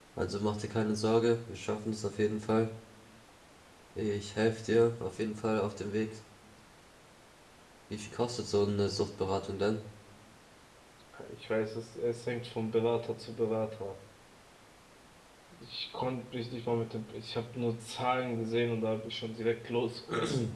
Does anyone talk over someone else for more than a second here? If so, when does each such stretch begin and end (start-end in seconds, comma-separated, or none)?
none